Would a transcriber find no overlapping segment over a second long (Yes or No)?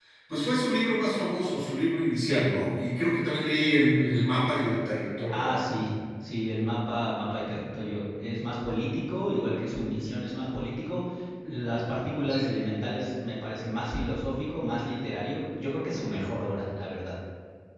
Yes